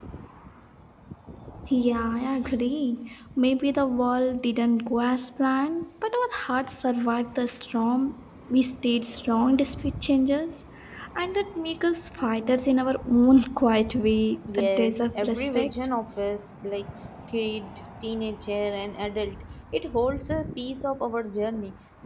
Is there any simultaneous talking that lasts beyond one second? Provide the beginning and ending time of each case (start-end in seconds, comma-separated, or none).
14.5-15.9